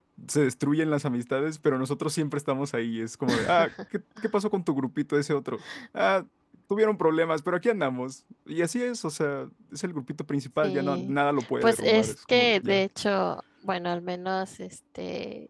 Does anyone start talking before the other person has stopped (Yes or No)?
Yes